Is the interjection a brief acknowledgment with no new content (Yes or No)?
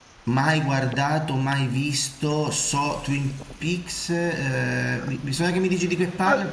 No